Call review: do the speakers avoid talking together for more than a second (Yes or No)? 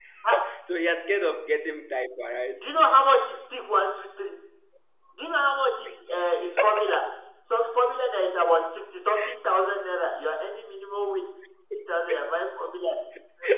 Yes